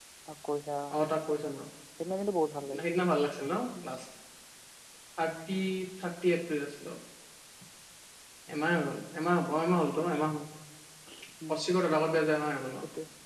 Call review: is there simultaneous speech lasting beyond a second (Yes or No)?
No